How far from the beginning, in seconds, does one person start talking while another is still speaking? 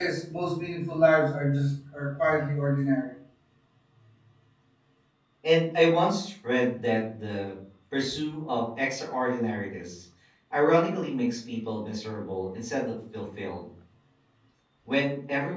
none

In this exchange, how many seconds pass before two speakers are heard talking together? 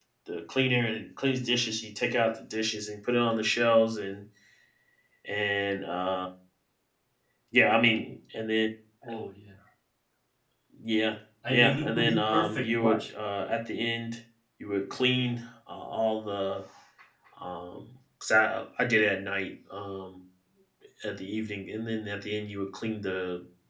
11.5 s

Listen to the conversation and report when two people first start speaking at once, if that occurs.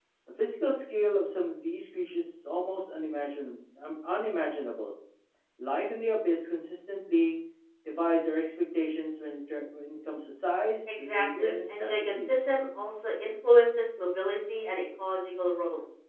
10.9 s

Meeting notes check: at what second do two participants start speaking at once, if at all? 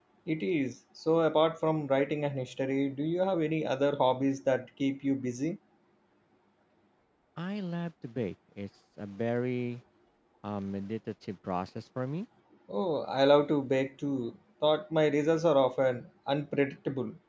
none

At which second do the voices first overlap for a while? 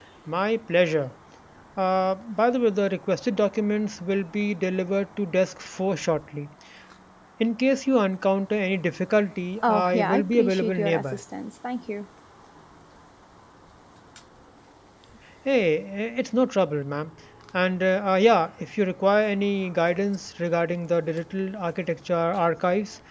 9.6 s

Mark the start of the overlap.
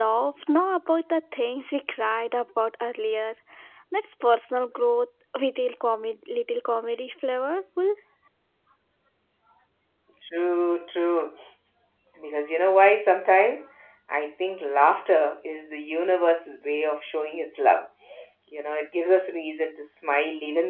none

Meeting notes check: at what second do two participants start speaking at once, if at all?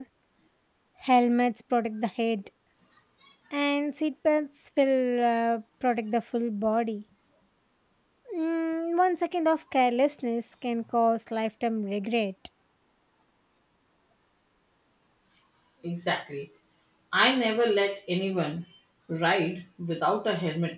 none

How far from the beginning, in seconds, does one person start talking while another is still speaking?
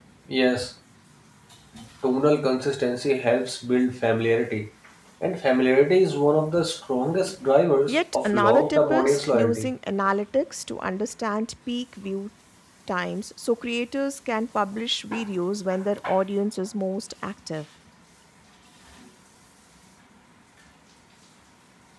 7.9 s

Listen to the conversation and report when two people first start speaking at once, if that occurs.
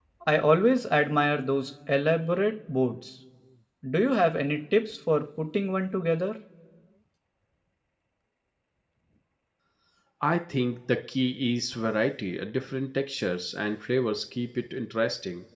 none

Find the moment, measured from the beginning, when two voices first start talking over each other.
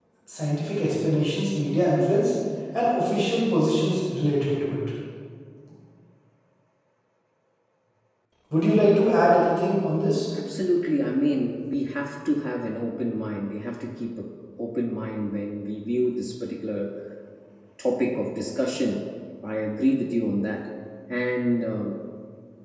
none

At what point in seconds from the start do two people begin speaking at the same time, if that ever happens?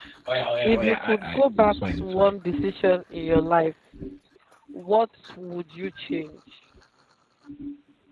0.6 s

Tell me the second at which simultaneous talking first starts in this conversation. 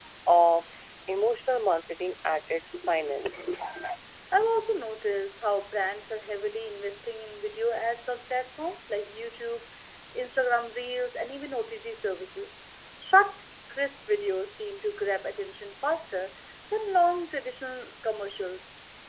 none

